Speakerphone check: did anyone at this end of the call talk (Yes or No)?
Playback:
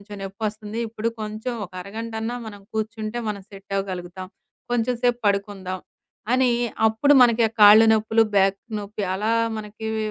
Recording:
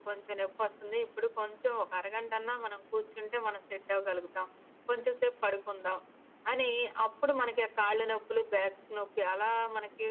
No